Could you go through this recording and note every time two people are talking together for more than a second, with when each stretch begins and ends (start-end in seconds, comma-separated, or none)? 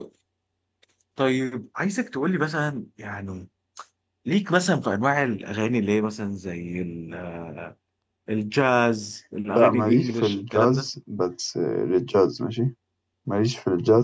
9.5-10.9